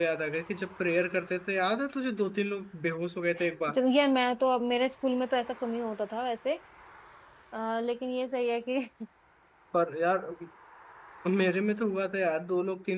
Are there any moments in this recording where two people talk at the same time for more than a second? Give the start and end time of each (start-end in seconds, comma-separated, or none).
none